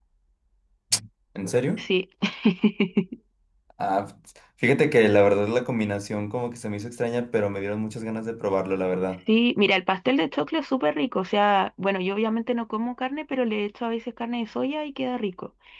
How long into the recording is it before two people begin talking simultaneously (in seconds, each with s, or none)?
none